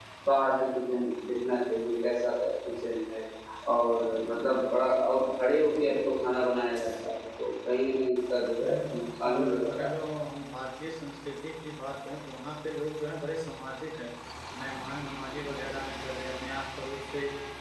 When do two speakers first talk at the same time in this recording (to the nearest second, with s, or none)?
9 s